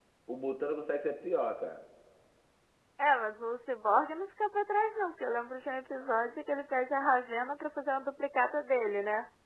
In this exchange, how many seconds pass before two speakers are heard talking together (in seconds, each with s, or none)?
none